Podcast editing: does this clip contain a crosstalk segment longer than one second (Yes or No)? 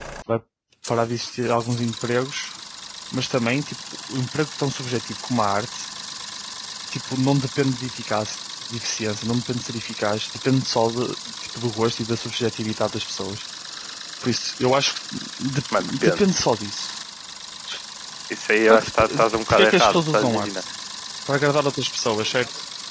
Yes